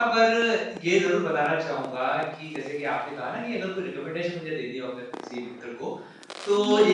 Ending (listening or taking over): listening